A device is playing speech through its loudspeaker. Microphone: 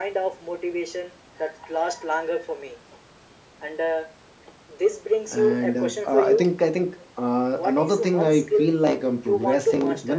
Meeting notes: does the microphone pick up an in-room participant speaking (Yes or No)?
Yes